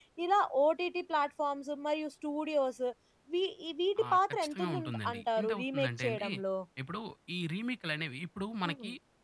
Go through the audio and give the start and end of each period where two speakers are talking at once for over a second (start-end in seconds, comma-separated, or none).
4.0-6.3